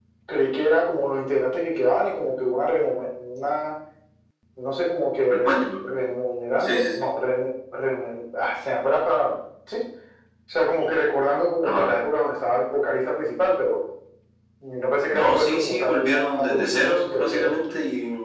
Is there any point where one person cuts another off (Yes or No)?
Yes